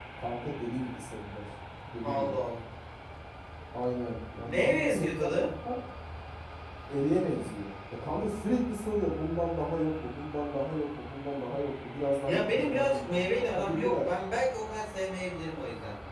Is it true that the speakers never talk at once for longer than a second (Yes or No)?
No